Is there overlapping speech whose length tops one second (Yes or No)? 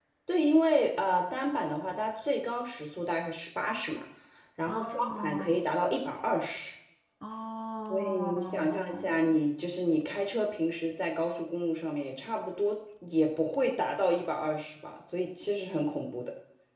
Yes